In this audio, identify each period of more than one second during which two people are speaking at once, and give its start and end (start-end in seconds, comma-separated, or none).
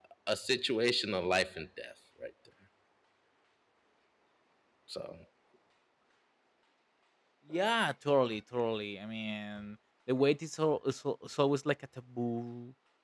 none